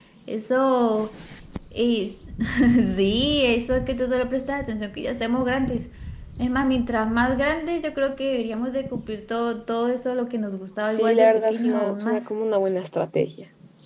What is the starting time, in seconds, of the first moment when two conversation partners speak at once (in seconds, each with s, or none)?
10.8 s